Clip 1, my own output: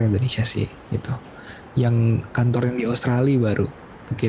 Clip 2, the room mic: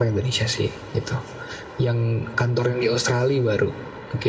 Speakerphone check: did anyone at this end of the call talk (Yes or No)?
No